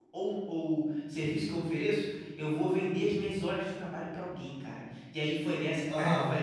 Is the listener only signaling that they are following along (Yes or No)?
Yes